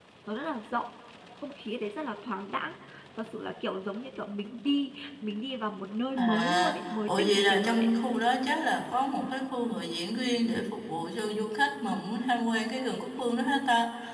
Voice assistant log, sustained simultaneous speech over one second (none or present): present